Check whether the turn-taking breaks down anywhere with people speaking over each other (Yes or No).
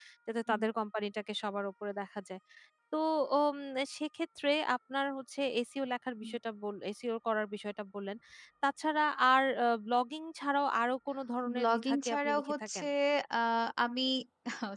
Yes